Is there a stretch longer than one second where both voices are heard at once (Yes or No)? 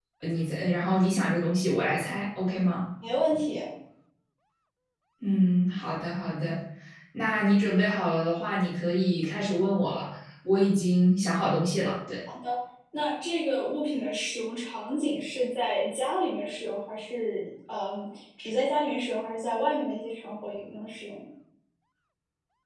No